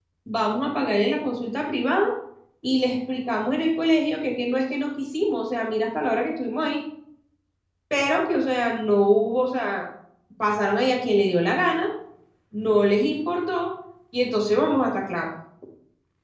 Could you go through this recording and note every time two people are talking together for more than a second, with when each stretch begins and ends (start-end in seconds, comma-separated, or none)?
none